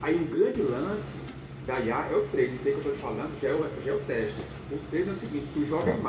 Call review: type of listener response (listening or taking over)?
listening